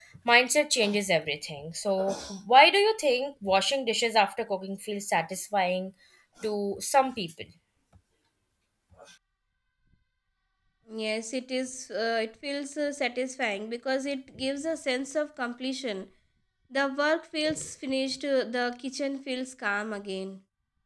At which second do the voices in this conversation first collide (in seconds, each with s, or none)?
none